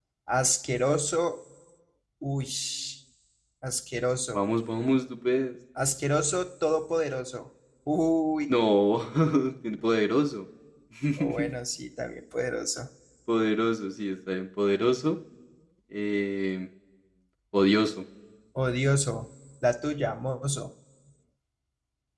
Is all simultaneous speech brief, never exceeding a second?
Yes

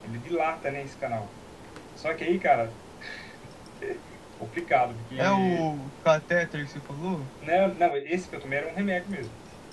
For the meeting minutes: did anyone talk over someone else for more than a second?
No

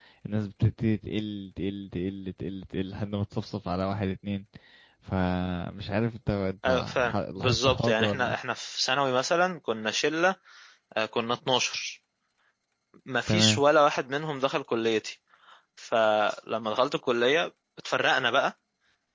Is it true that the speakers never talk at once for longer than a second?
No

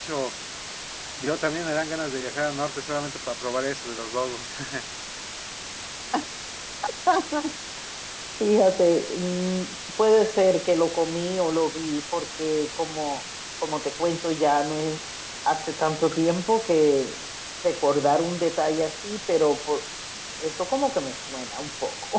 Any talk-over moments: No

